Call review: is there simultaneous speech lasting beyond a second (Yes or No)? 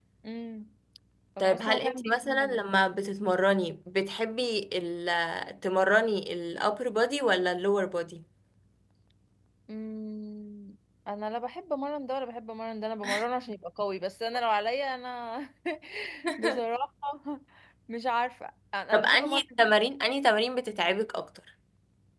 Yes